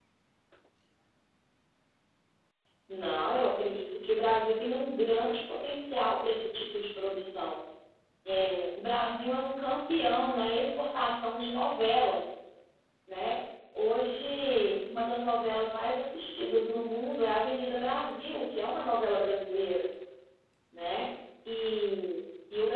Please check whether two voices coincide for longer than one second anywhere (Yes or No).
No